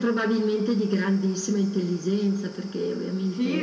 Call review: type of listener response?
taking over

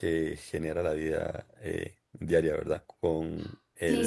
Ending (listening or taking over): taking over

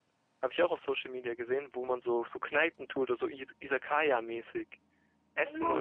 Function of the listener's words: taking over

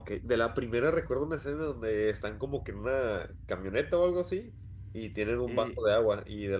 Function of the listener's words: listening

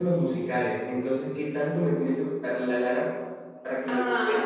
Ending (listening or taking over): listening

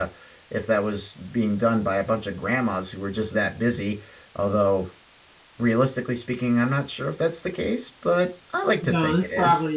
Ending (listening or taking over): taking over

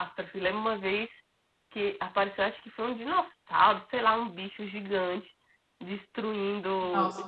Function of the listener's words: listening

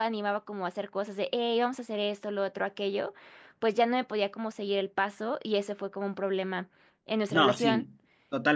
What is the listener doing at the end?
taking over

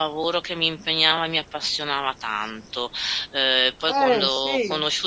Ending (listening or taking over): listening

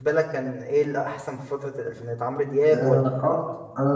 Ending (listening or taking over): taking over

